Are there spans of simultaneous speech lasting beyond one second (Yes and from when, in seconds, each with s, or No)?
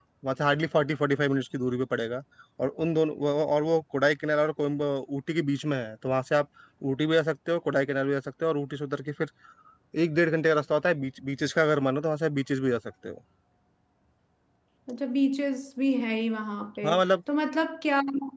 No